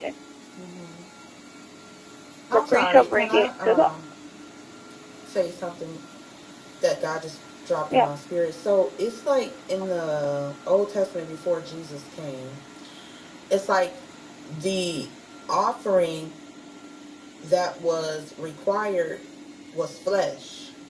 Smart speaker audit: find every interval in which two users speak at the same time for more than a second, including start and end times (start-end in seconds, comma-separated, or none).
2.5-3.9